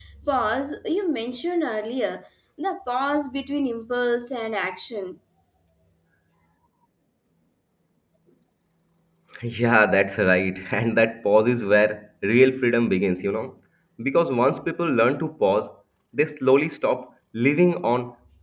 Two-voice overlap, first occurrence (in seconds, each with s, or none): none